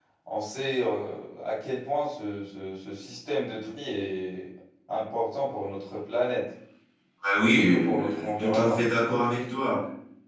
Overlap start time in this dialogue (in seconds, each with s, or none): 7.4 s